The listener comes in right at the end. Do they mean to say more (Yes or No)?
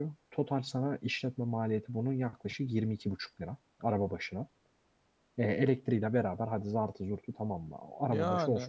Yes